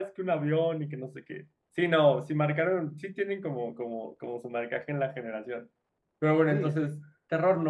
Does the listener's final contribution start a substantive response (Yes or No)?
No